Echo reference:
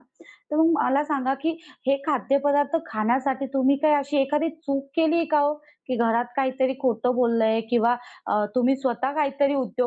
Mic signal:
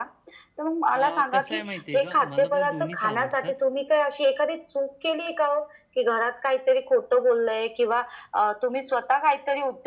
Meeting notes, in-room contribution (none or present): present